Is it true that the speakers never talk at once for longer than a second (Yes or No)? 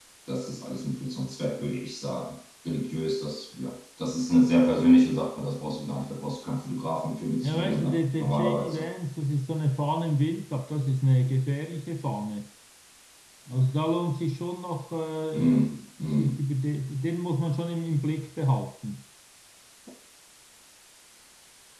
No